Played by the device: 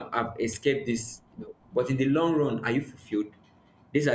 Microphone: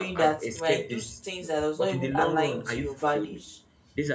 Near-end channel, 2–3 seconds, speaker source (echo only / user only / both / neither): both